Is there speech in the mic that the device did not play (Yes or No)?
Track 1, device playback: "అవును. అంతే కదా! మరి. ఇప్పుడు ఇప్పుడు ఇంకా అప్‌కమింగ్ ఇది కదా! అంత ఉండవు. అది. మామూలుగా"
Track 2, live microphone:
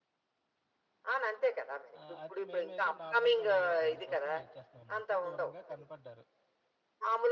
Yes